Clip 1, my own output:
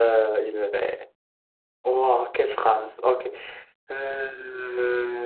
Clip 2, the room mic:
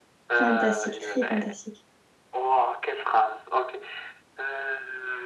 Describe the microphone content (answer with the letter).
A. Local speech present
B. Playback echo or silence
A